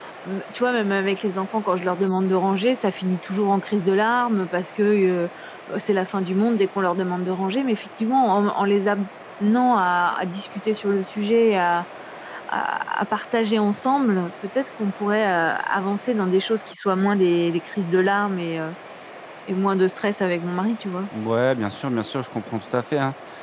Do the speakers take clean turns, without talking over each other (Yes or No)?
Yes